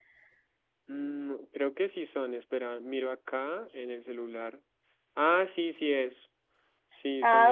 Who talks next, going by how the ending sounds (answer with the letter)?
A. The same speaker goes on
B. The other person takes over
B